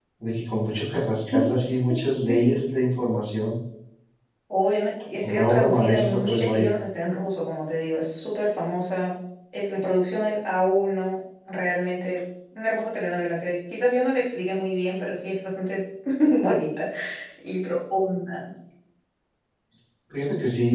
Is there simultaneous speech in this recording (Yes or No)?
Yes